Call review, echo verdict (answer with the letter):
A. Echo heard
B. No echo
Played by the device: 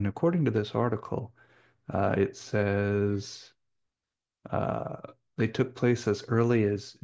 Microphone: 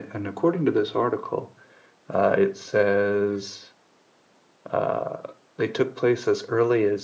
A